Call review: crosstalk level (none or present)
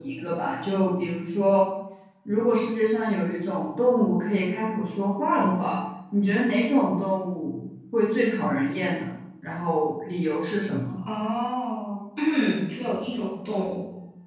none